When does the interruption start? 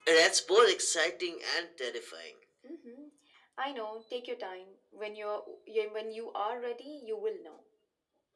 none

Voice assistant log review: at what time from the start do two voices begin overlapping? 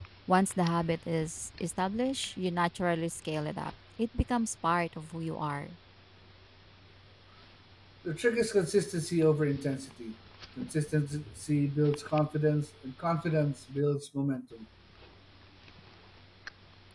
none

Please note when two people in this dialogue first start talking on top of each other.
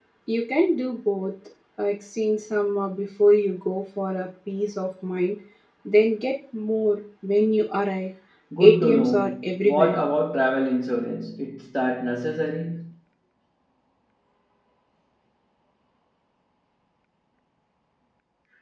8.6 s

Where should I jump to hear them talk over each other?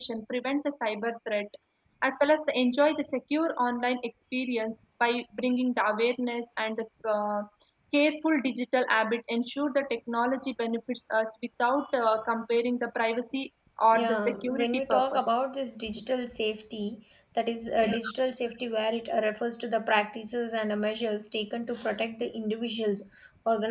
13.9 s

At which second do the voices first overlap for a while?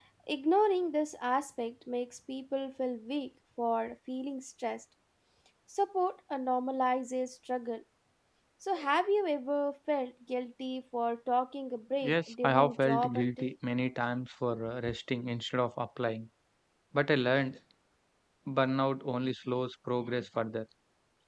12.0 s

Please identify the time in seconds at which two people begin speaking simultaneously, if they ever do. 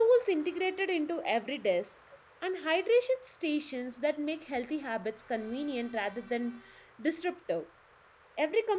none

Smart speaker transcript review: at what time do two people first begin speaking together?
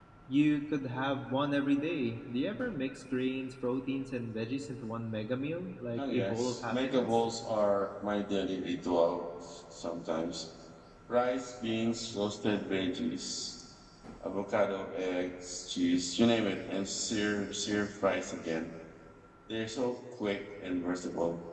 6.0 s

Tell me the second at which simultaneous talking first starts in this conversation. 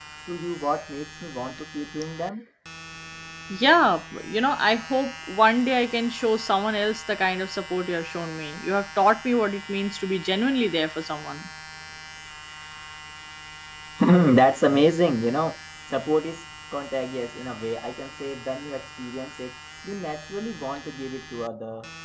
none

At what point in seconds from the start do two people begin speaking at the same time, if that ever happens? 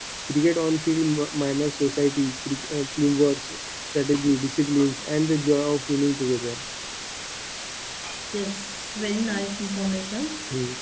none

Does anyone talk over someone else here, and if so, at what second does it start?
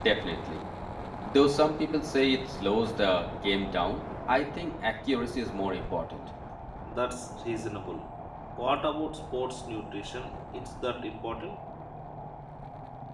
none

